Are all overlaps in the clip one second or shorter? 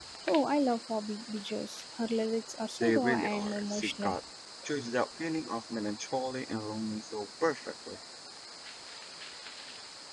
No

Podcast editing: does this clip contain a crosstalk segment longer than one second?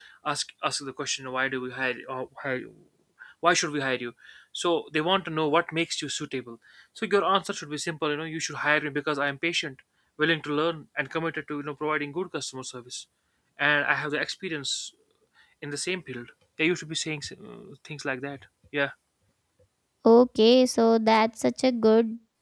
No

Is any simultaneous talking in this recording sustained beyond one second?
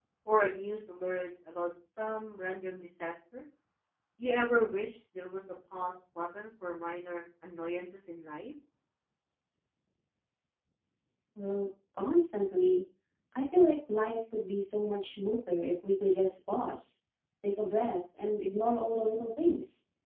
No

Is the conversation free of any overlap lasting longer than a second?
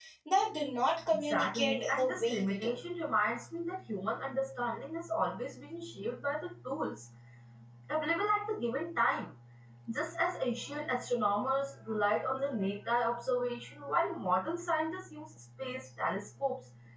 No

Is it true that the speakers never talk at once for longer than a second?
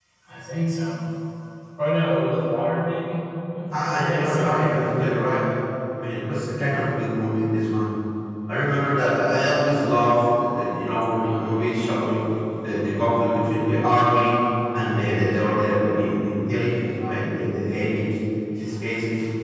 No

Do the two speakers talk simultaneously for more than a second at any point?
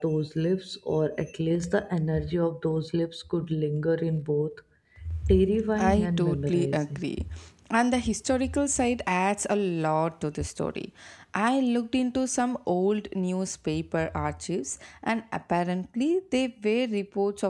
Yes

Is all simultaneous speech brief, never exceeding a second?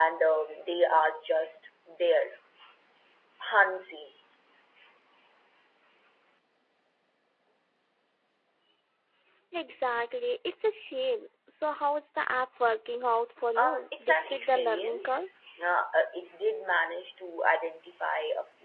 No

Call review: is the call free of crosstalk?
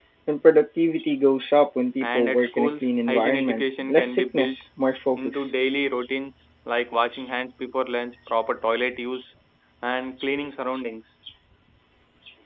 No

